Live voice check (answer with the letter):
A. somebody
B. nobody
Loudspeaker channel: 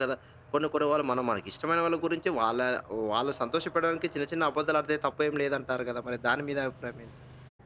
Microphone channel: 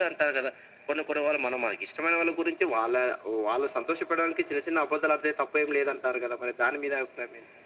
B